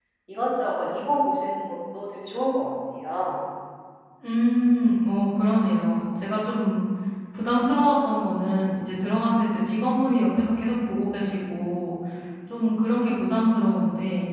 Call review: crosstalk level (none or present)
none